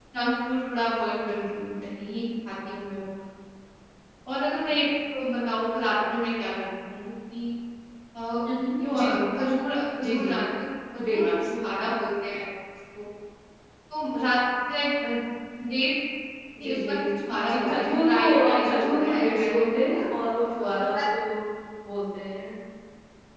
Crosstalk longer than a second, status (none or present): present